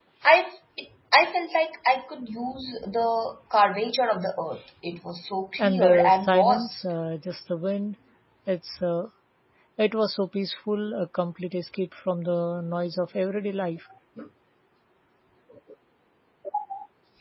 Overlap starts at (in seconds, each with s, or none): 5.6 s